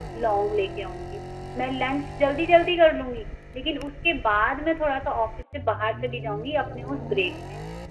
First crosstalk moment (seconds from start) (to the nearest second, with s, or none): none